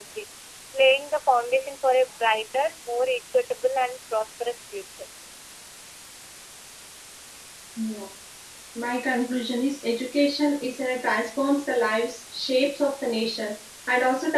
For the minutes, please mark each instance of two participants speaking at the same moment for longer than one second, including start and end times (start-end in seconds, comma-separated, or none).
none